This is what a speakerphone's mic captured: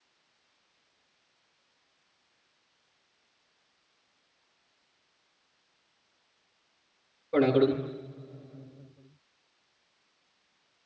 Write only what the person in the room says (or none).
कोणाकडून?